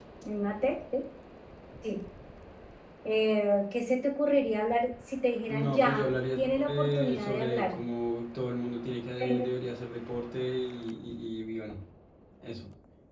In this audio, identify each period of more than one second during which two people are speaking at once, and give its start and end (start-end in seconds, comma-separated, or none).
5.5-7.8